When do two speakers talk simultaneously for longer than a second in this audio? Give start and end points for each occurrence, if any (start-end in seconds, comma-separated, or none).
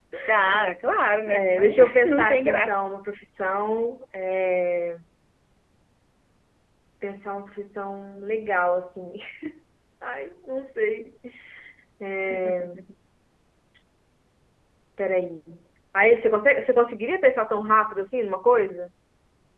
1.3-2.7